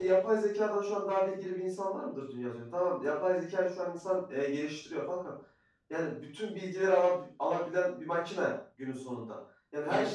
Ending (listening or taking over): listening